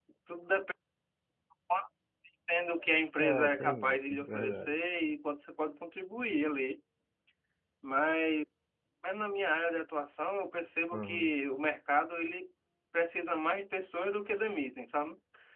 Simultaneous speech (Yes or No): Yes